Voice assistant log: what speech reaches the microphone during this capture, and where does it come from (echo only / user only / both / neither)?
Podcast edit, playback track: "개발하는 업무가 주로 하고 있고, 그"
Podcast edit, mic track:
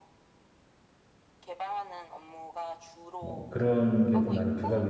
both